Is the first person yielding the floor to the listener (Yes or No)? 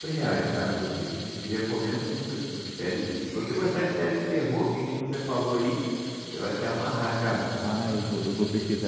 Yes